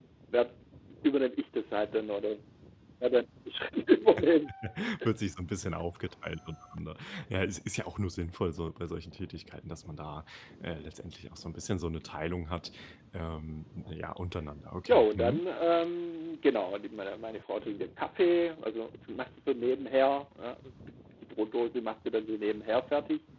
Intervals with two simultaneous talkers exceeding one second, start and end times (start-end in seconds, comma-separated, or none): none